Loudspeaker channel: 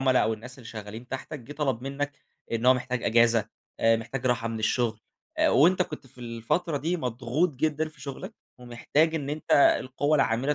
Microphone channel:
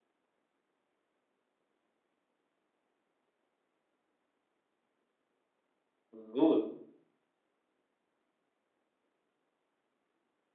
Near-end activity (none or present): present